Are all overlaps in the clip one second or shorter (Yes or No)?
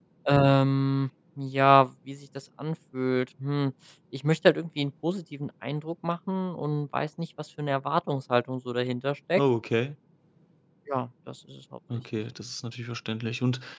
Yes